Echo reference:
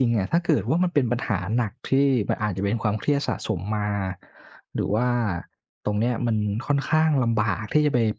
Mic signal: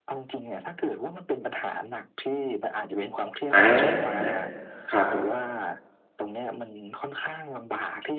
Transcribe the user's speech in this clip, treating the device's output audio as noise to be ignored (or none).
อาครับ